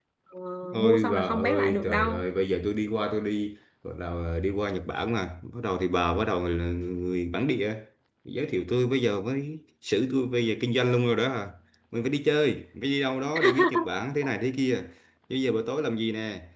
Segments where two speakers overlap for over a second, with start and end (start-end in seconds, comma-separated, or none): 0.8-2.2